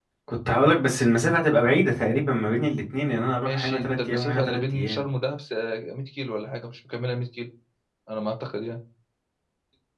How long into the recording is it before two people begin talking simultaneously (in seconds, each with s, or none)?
3.4 s